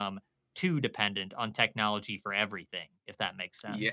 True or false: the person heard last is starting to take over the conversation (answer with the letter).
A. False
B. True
B